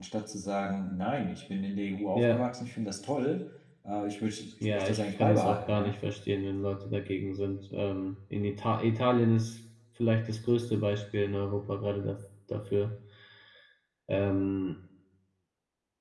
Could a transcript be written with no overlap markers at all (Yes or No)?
No